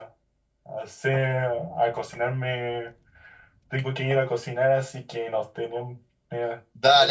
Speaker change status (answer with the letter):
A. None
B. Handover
B